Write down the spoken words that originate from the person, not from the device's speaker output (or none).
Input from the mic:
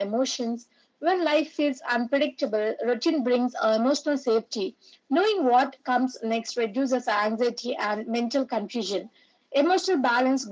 none